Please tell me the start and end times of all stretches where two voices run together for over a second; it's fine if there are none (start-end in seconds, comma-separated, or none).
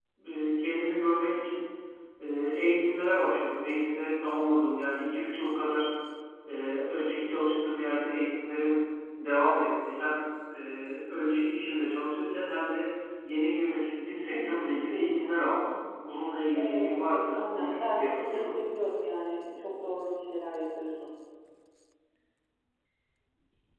16.5-18.4